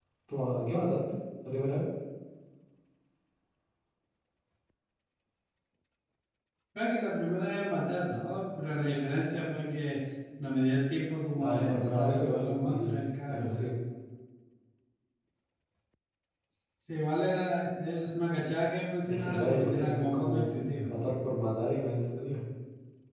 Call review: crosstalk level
present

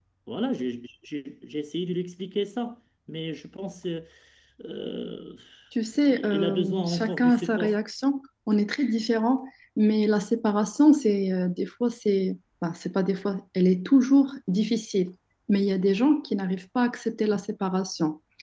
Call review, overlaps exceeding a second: present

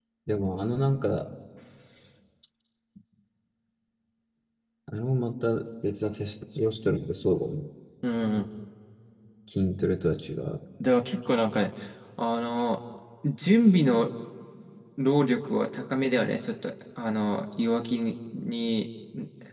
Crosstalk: none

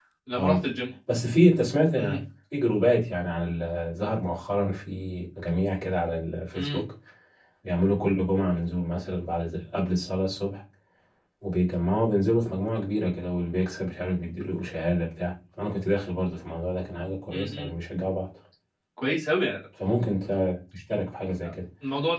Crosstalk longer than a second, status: none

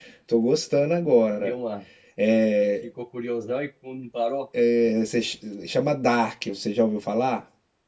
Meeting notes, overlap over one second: none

